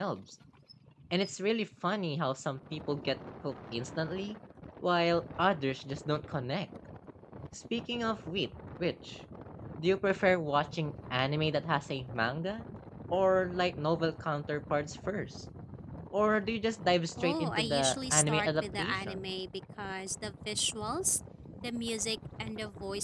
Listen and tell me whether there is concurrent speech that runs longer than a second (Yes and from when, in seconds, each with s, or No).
Yes, from 17.2 s